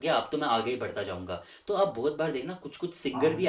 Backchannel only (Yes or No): Yes